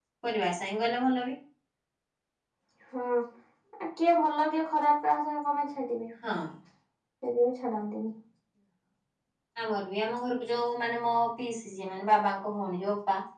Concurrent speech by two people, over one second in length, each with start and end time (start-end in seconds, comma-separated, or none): none